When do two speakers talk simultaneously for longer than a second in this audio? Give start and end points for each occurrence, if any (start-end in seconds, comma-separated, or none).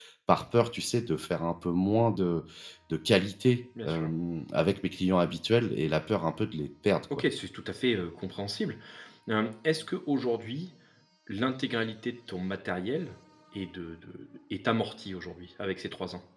none